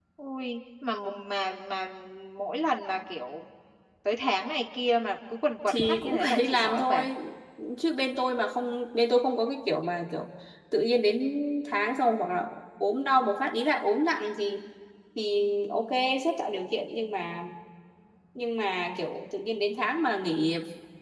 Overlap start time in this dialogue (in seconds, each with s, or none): 5.7 s